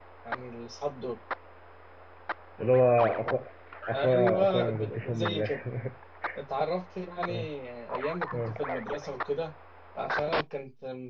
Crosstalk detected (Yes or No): Yes